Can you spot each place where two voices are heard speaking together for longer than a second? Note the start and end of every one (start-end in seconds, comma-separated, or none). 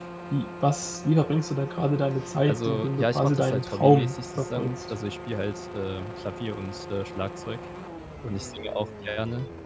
2.5-4.7